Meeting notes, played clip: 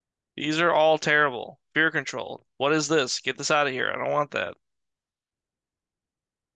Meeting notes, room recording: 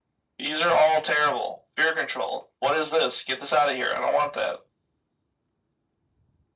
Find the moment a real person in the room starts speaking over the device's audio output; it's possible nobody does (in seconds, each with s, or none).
none